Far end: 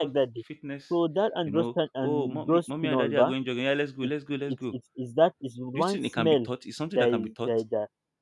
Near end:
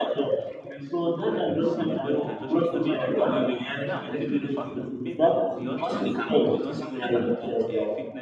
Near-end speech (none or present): present